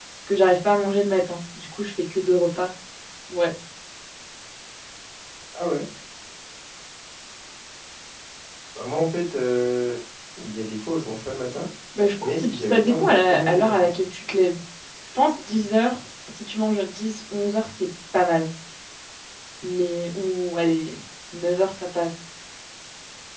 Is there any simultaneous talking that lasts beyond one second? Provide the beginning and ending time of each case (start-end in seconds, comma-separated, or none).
12.2-13.9